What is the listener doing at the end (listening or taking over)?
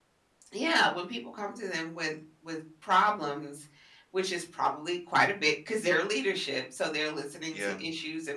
listening